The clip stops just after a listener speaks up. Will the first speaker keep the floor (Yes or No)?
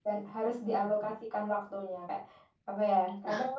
Yes